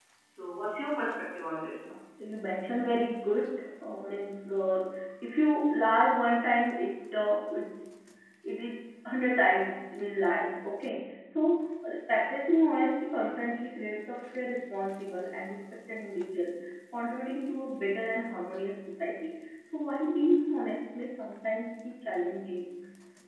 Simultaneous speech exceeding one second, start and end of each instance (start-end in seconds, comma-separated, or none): none